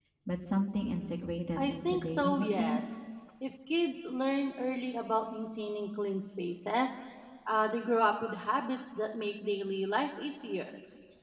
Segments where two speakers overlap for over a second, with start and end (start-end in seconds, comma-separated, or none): 1.6-3.0